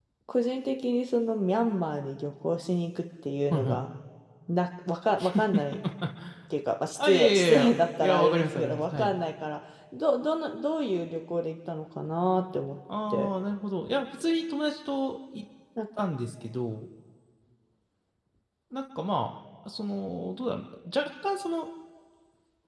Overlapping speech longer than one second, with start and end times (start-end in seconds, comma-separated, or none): 7.0-9.1